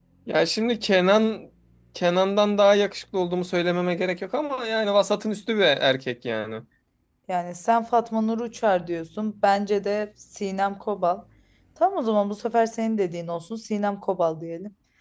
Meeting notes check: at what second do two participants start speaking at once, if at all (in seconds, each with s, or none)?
none